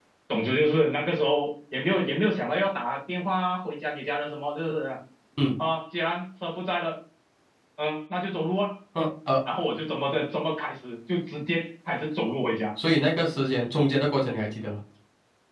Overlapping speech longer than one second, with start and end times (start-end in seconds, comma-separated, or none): none